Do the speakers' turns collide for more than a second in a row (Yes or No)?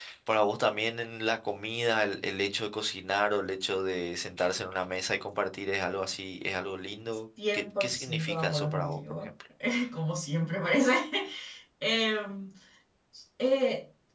Yes